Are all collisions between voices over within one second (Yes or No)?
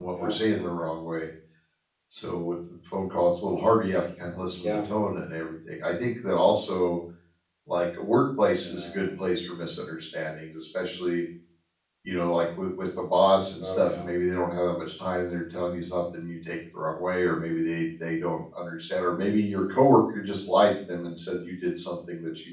Yes